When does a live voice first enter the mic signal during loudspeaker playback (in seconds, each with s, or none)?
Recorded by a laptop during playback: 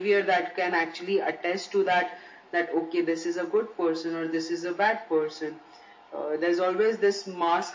none